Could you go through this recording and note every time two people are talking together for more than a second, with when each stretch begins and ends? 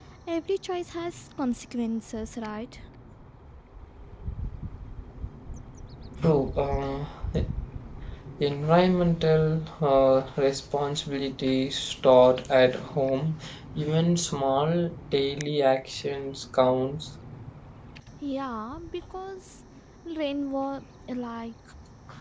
none

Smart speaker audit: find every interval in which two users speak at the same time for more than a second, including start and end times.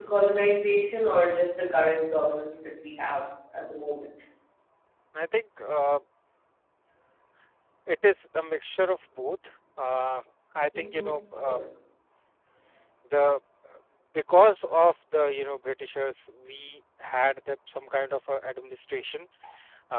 none

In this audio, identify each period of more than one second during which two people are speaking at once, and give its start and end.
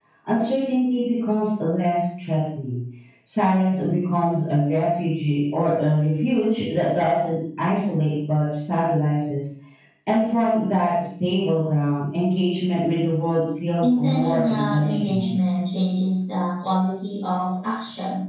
13.8-15.3

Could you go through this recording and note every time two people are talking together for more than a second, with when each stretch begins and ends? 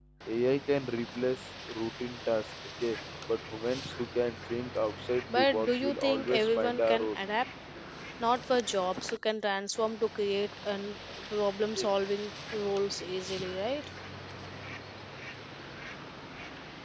5.4-7.1

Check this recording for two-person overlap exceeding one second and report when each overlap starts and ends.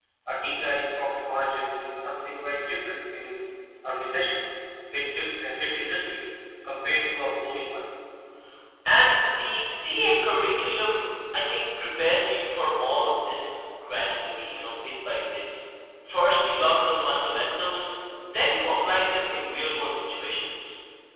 none

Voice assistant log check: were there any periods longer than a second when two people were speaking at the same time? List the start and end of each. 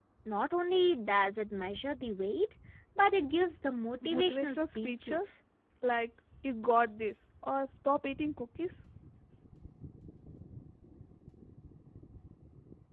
4.0-5.4

